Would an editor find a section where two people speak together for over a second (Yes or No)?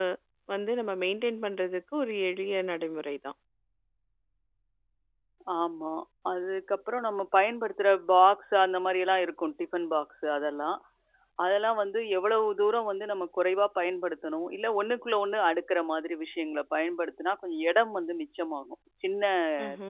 No